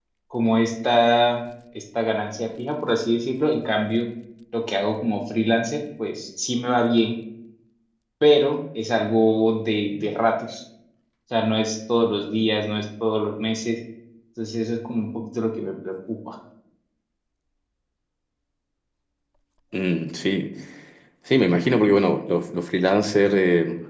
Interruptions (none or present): none